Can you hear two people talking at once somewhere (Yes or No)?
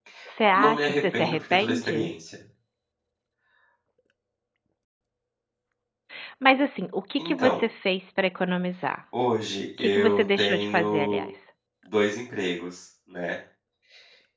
Yes